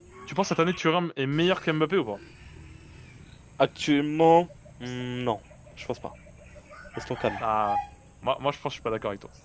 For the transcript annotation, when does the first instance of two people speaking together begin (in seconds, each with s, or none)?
none